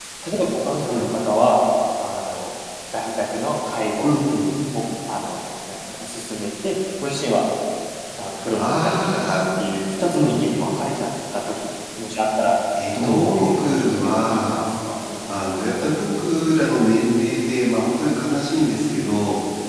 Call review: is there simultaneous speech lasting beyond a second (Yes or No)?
Yes